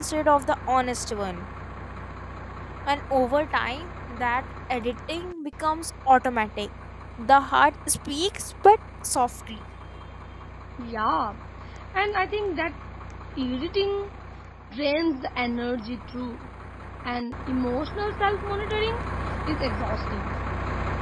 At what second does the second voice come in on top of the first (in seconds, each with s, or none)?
none